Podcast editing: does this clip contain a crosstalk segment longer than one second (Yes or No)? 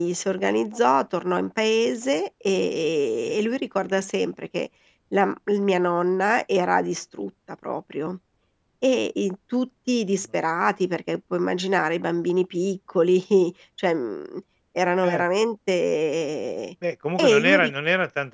No